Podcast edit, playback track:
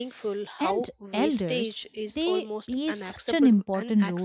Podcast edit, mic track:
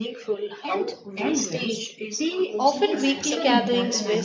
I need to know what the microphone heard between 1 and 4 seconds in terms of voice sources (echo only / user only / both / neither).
both